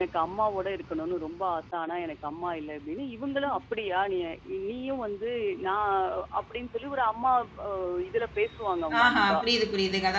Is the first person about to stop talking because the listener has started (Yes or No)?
Yes